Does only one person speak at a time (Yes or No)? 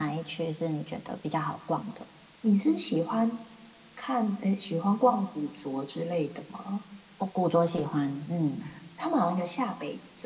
Yes